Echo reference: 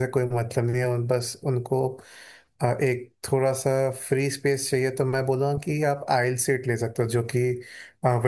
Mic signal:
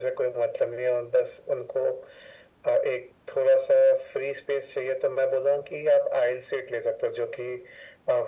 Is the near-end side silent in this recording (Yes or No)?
Yes